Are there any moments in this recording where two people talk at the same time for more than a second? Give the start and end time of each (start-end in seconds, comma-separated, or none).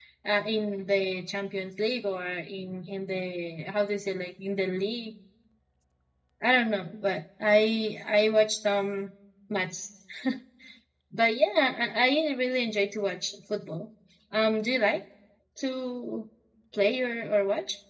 none